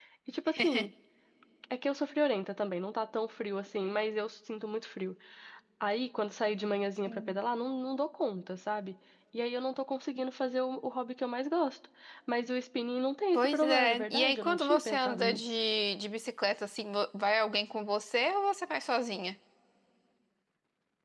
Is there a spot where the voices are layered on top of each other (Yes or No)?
Yes